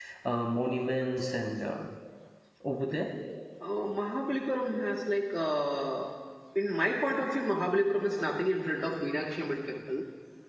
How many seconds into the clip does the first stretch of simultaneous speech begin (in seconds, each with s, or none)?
none